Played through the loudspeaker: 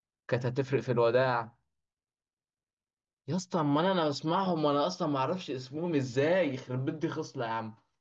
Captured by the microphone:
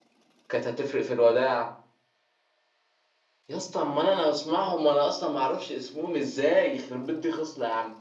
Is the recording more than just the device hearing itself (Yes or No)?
No